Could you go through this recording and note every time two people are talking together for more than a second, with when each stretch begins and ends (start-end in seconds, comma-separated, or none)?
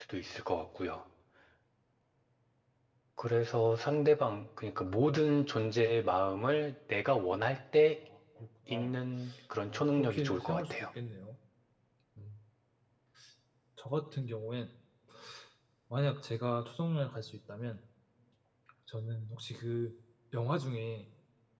9.7-10.9